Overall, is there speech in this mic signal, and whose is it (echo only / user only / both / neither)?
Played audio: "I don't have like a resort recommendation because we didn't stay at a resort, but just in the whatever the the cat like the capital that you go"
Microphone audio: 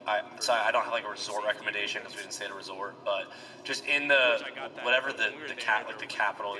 both